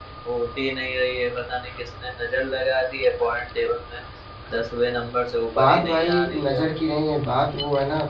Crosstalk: present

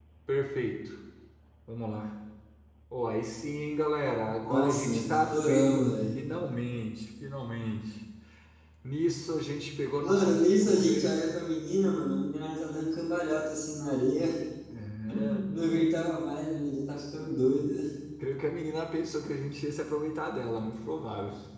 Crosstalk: present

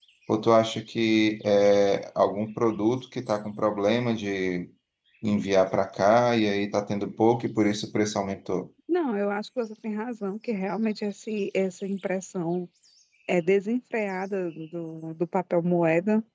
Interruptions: none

